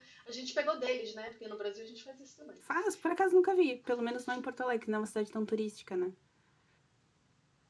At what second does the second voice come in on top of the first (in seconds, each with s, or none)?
none